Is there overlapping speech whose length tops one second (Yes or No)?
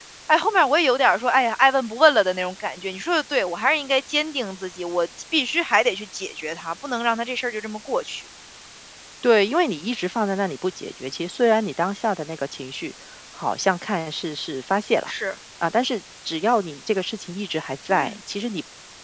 No